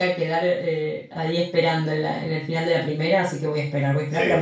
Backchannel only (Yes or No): Yes